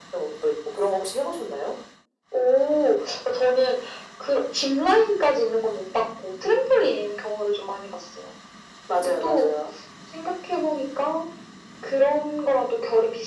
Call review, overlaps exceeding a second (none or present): none